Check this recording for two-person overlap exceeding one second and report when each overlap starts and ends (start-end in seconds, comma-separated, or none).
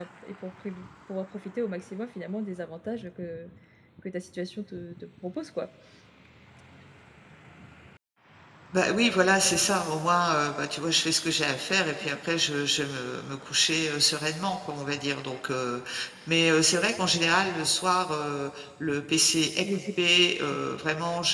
none